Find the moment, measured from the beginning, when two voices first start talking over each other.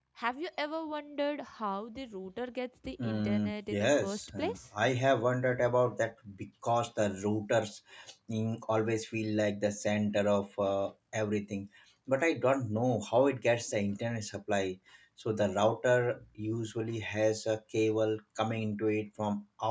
3.0 s

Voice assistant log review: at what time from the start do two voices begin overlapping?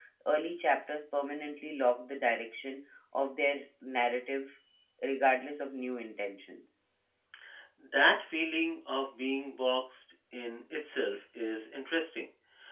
none

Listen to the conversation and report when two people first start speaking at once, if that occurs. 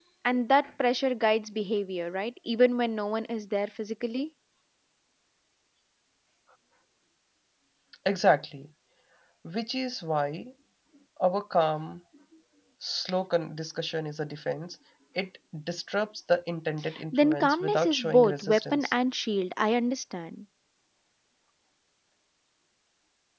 17.1 s

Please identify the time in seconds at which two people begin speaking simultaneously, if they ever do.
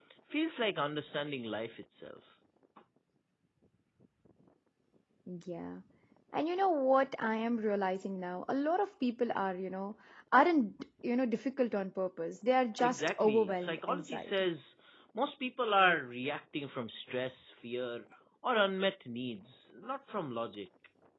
12.8 s

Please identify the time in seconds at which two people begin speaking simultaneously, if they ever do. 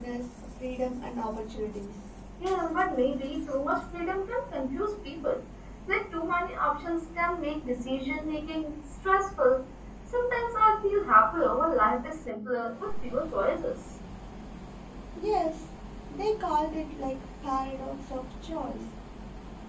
none

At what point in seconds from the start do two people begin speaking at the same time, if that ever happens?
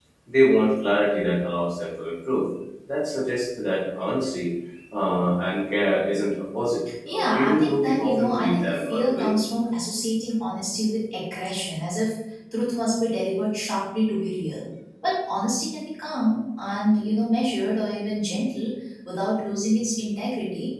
7.1 s

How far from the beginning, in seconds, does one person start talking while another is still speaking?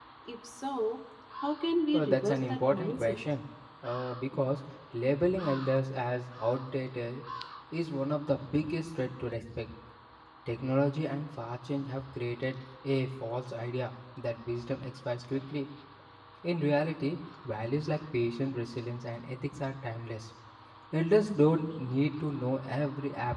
1.9 s

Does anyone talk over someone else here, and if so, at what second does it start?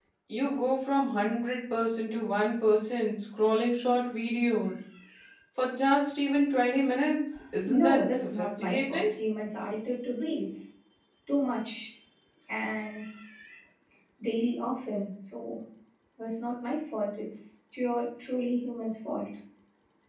7.7 s

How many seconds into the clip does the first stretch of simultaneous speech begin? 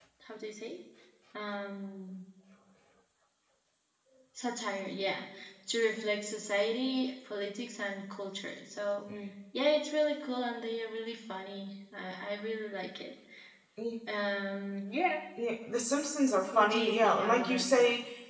16.5 s

